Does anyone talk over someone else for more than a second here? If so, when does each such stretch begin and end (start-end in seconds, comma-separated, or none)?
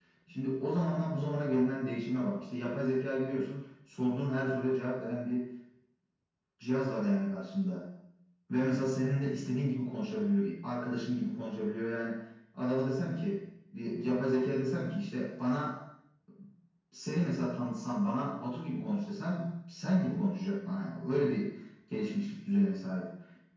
none